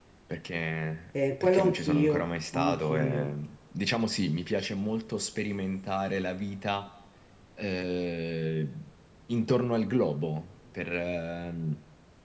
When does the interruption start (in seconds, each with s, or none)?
1.4 s